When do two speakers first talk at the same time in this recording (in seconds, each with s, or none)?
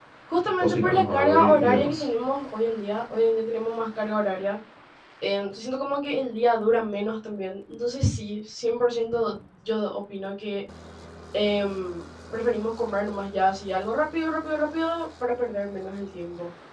0.6 s